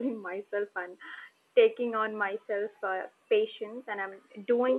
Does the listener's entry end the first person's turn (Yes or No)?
Yes